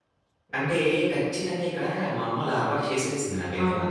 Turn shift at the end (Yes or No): Yes